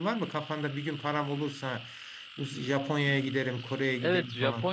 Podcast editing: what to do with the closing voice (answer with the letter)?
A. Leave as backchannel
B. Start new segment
B